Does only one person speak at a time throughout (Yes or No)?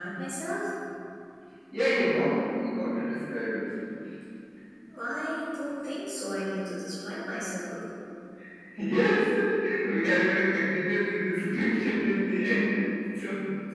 Yes